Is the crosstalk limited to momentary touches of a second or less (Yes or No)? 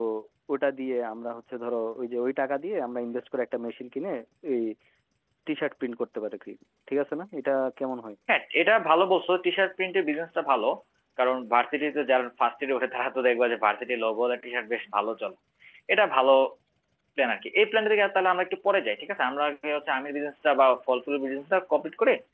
Yes